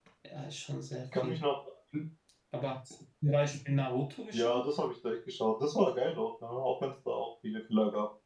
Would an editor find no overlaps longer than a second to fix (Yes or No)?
Yes